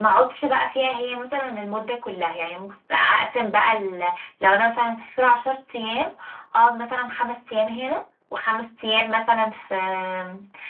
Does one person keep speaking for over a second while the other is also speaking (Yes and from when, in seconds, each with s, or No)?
No